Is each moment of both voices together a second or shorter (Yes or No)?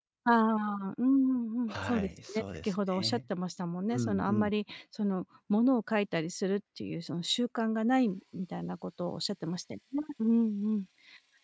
No